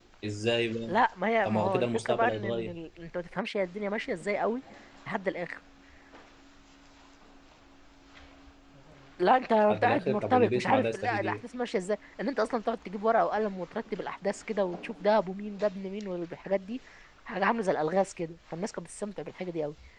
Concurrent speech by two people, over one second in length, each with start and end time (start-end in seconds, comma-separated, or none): 1.4-2.8, 9.7-11.4